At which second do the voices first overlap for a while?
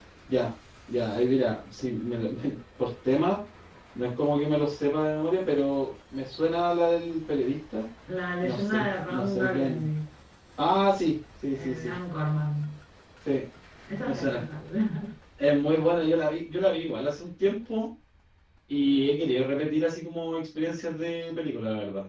8.4 s

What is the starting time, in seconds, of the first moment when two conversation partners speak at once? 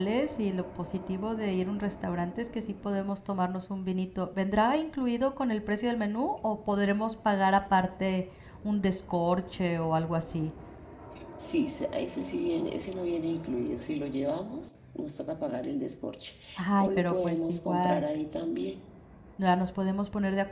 16.8 s

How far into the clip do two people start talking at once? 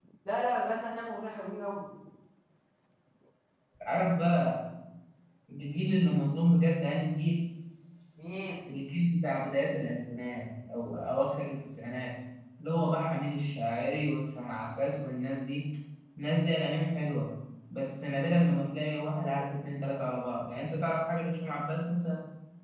none

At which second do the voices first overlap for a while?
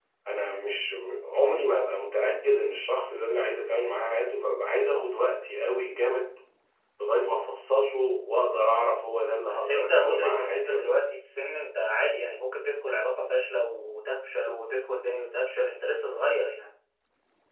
9.5 s

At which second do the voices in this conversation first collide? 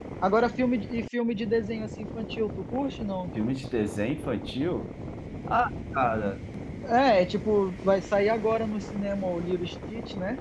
none

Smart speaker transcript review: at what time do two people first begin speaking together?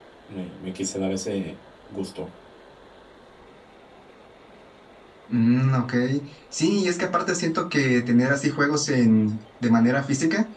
none

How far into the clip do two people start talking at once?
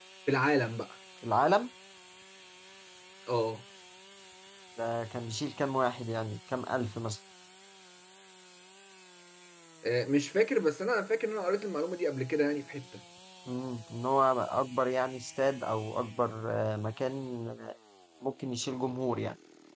none

